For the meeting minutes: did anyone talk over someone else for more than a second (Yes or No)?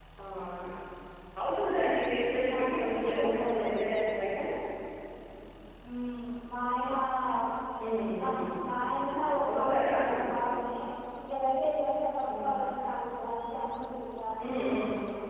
Yes